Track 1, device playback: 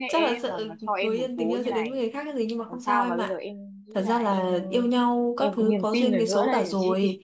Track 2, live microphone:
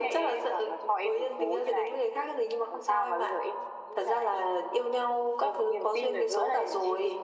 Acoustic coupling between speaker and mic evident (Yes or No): Yes